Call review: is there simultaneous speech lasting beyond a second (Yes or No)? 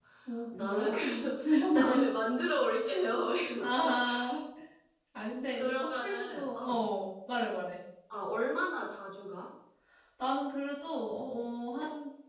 Yes